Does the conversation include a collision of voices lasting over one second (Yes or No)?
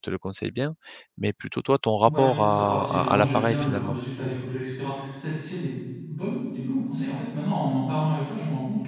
Yes